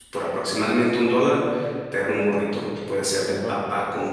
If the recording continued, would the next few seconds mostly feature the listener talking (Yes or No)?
No